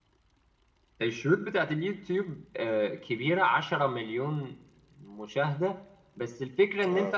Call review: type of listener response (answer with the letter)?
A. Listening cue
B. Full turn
A